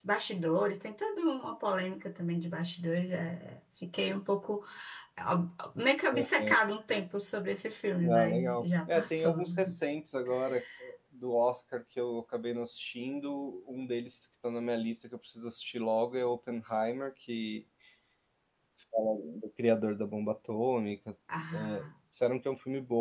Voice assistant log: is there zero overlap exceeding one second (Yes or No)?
No